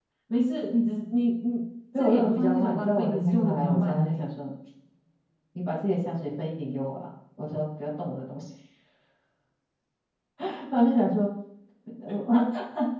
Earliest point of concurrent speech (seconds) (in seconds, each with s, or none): 1.9 s